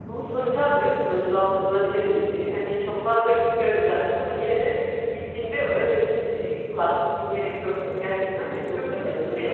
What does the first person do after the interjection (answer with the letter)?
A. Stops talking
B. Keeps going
A